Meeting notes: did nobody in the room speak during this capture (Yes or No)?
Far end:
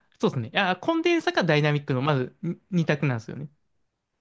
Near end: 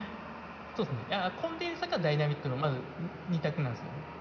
Yes